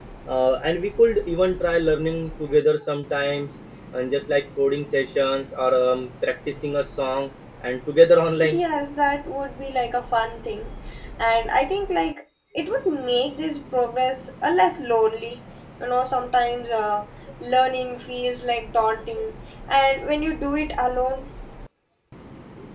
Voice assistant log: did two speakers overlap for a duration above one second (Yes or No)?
No